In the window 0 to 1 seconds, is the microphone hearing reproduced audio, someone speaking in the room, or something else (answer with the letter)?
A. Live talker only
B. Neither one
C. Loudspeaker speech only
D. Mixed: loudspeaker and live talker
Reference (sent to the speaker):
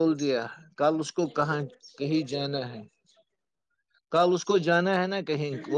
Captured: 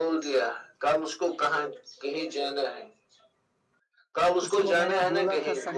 C